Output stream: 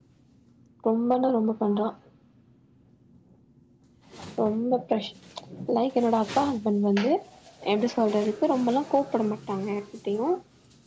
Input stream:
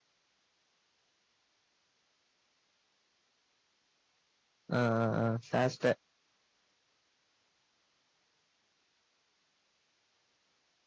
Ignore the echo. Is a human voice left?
Yes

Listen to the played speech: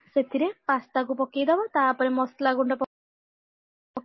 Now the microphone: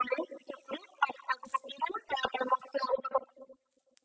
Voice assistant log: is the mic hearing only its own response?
Yes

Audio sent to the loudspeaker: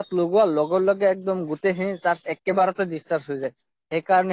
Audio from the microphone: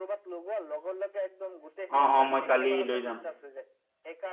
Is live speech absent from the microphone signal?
No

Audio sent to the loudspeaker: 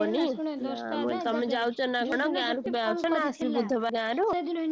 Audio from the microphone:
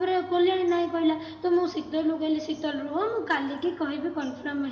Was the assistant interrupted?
Yes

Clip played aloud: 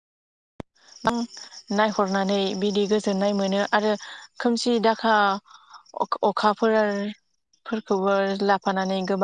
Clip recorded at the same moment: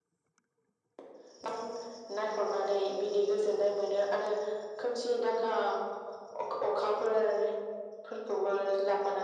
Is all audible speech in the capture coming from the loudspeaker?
Yes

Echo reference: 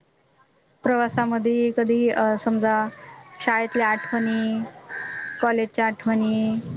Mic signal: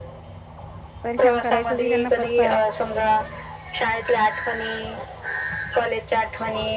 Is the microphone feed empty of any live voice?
No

